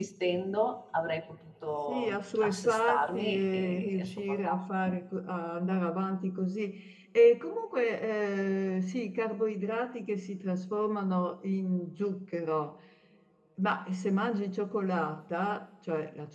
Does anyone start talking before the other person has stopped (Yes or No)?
Yes